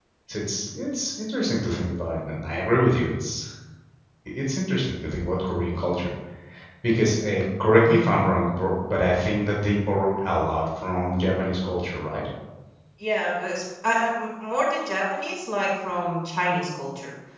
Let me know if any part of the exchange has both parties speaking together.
No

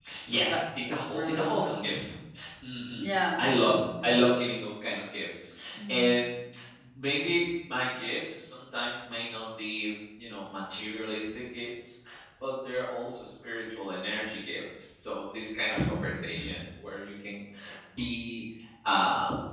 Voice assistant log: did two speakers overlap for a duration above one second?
Yes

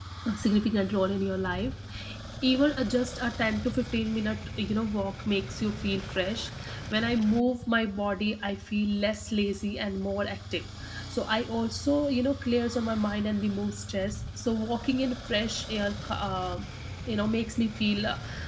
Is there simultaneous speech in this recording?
No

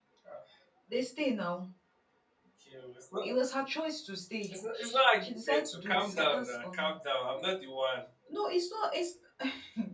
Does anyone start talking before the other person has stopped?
Yes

